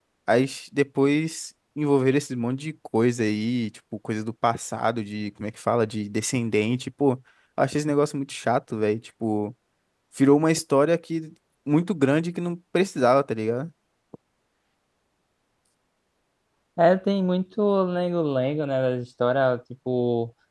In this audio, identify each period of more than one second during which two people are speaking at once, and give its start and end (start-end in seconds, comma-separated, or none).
none